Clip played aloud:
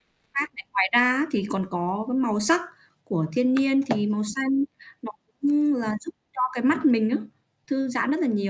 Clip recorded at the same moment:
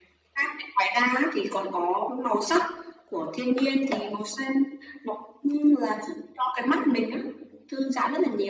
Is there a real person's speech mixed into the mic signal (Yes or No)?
No